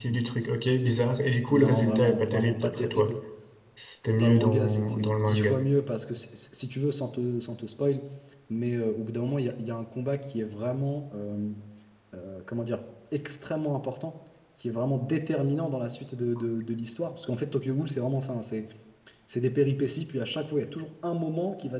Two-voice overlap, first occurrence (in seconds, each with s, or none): 1.5 s